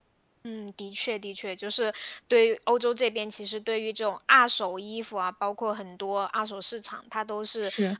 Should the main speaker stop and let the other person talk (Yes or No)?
No